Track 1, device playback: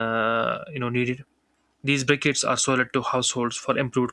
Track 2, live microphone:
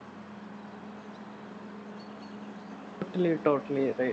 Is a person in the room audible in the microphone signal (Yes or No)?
Yes